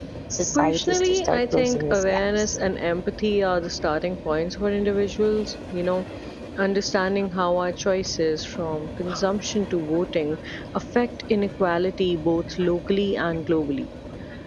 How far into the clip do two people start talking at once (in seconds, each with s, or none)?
0.5 s